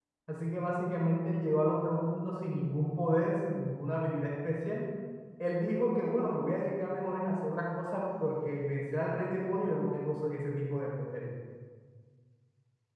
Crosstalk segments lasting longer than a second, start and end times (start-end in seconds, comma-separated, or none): none